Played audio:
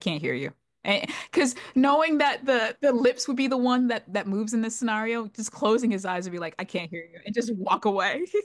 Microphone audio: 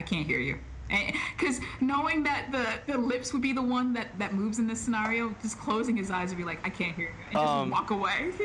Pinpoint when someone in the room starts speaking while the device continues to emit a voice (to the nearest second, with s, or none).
7 s